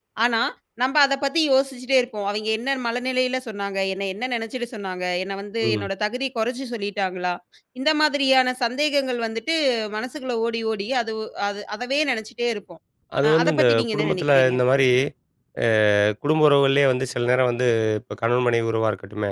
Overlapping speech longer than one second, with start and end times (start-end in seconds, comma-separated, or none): 13.2-14.6